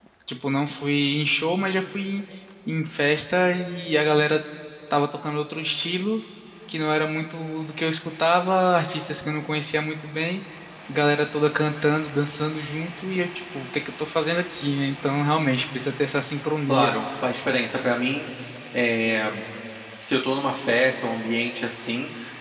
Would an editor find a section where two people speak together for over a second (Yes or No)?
No